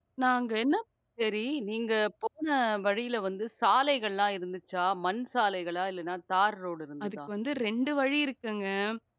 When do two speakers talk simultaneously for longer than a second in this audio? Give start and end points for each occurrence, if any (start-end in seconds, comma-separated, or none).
none